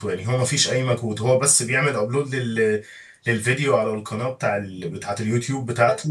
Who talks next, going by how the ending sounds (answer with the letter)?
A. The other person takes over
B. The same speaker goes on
B